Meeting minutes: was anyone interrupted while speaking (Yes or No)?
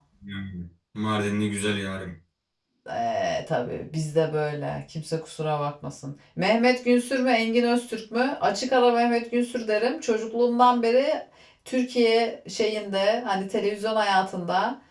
No